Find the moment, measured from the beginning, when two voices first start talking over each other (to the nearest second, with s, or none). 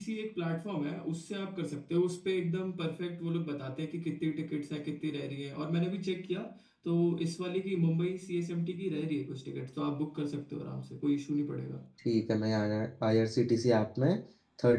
none